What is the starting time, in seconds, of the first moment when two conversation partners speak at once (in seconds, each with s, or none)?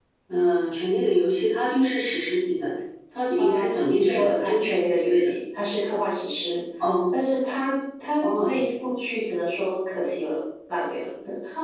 3.4 s